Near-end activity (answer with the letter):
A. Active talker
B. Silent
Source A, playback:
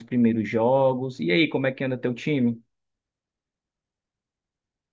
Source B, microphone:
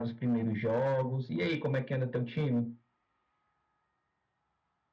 B